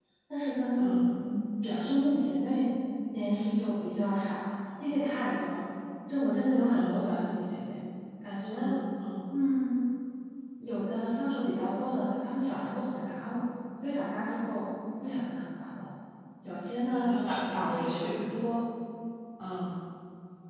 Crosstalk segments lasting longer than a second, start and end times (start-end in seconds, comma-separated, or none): 16.8-18.2